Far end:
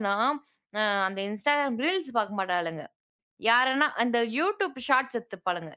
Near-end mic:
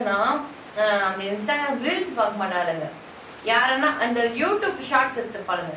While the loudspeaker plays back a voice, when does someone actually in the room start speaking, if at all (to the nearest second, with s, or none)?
none